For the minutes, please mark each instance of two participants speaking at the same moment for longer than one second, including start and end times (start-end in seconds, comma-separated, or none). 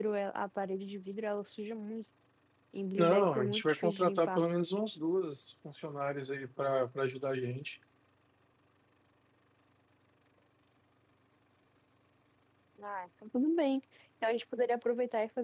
3.0-4.4